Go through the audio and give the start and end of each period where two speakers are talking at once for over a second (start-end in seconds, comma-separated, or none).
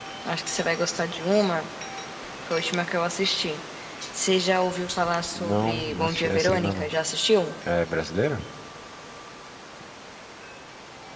5.4-6.9